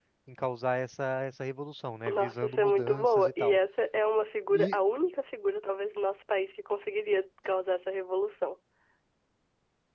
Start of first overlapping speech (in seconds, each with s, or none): 2.1 s